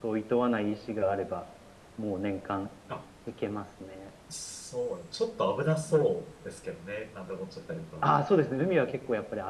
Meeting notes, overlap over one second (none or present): none